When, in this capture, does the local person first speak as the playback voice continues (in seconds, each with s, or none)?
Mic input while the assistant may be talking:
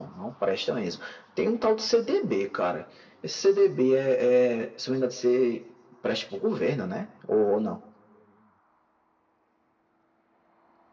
none